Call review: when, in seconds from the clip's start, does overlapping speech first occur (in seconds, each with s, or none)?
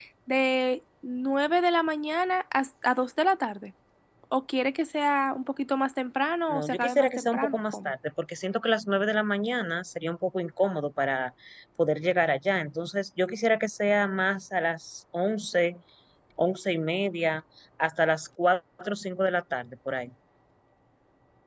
6.5 s